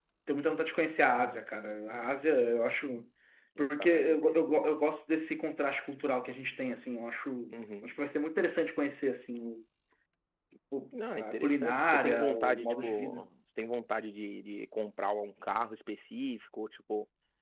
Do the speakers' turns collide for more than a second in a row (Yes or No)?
Yes